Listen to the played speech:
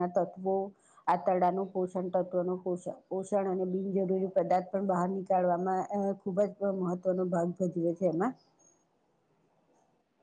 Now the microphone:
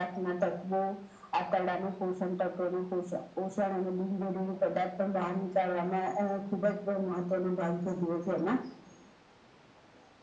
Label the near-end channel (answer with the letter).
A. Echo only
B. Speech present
A